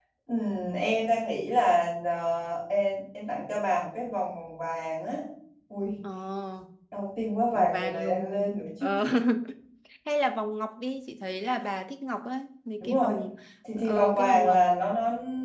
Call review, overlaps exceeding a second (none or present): present